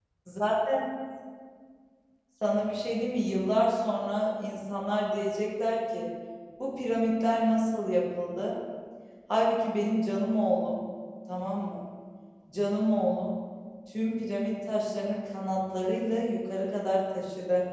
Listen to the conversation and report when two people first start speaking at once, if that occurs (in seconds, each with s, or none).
none